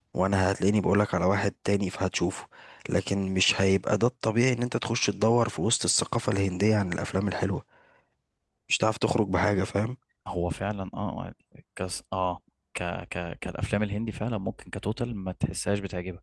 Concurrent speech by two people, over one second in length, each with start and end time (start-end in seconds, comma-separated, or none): none